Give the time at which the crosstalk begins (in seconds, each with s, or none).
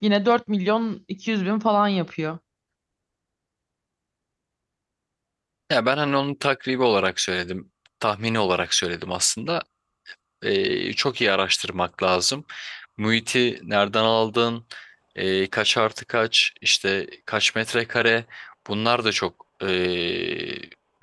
none